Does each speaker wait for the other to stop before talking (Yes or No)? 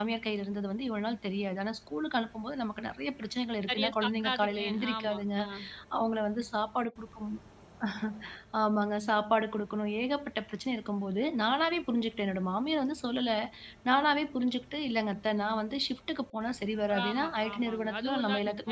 No